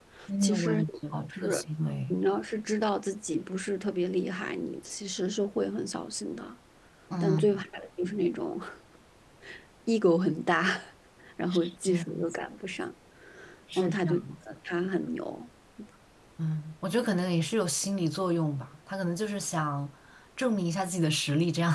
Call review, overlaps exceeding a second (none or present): present